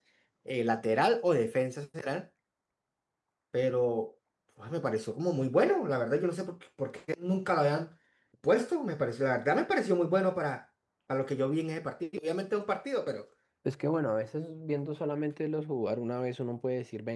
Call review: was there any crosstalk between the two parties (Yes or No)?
No